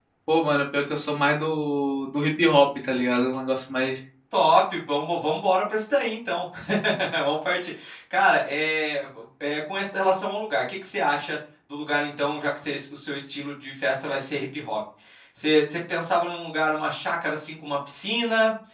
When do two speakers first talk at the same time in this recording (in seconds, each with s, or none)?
none